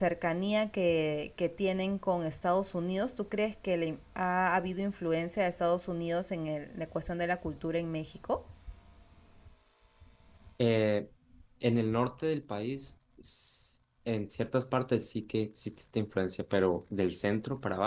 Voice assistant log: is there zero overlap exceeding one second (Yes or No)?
Yes